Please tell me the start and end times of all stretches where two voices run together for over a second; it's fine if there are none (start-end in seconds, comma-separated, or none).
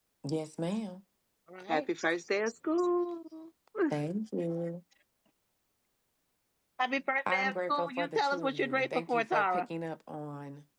7.3-9.6